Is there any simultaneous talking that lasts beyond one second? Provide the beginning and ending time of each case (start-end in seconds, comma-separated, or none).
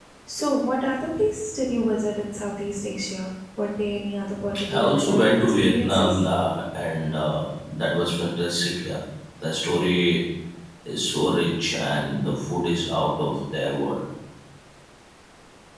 4.7-6.2